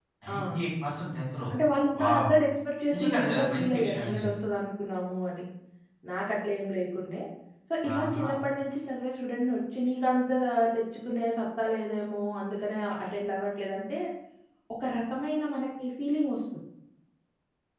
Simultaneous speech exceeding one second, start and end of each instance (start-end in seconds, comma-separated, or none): 2.9-4.3